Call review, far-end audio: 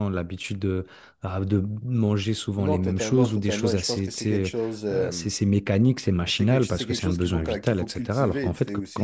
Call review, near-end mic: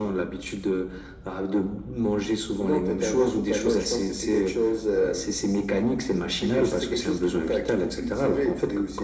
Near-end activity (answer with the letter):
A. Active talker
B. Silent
B